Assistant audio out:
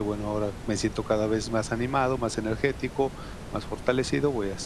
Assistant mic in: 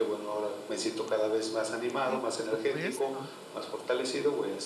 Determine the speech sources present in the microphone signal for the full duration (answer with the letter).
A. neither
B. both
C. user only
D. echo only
B